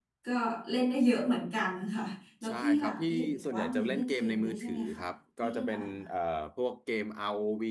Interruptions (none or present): present